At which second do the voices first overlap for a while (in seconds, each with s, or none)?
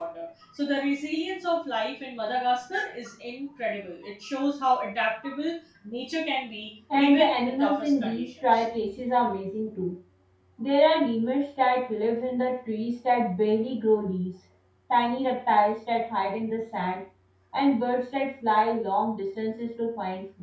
6.9 s